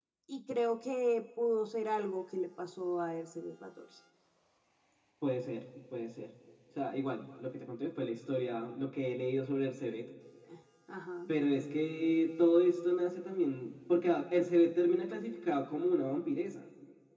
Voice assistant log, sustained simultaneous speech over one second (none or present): none